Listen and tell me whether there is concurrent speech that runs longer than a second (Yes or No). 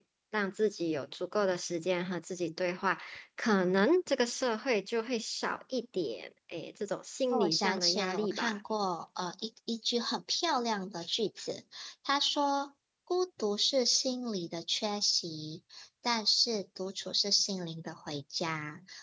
Yes